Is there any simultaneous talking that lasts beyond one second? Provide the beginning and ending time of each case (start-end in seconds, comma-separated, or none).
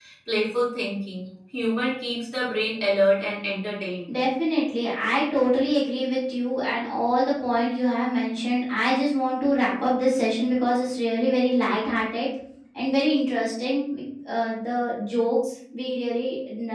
none